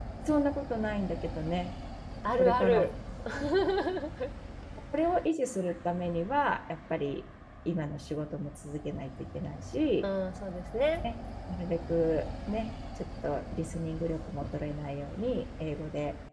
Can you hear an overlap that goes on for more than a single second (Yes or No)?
No